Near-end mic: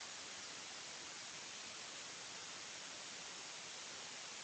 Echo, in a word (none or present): none